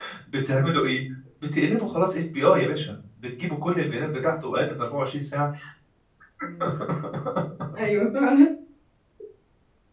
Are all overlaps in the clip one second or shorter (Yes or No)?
Yes